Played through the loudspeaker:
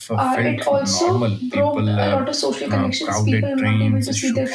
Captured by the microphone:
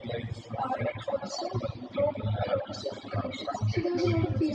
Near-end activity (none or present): present